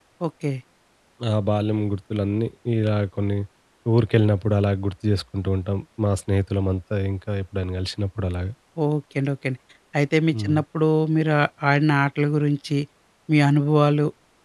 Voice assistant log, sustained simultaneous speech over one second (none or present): none